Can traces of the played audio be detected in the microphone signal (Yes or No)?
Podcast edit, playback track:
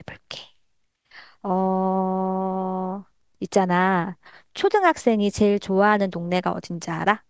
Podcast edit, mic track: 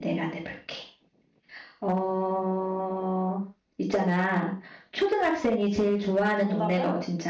Yes